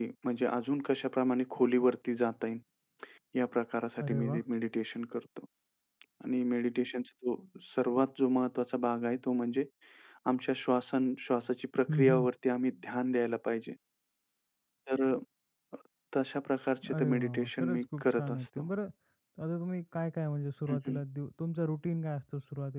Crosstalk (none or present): present